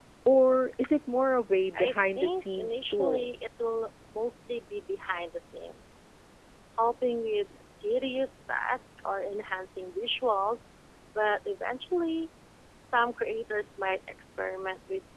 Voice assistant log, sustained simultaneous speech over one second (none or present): present